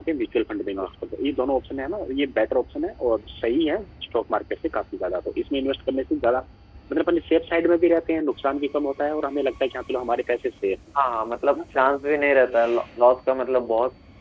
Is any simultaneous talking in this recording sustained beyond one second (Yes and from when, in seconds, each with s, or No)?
No